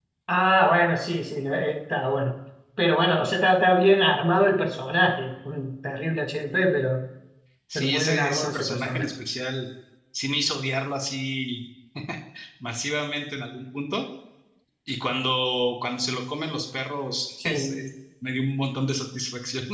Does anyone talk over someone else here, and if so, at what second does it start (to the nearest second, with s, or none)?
8 s